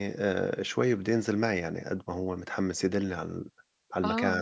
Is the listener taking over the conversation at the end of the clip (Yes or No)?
Yes